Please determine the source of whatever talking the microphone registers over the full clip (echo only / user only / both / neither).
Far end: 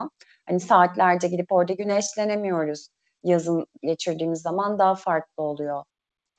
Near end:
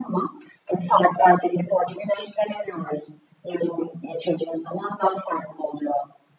echo only